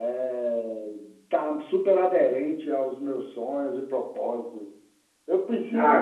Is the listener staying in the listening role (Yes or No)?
No